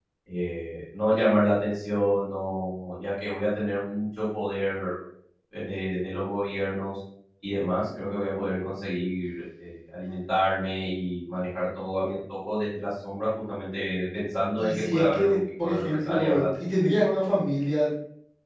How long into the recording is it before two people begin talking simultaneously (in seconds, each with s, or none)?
14.6 s